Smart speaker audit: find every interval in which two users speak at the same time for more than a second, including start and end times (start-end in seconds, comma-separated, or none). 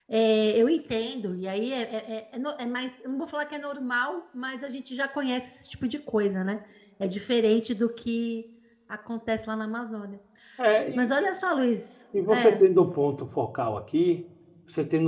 none